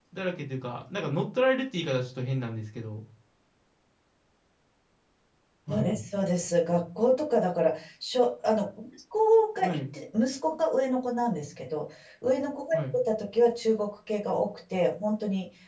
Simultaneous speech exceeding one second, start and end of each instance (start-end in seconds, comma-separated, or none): none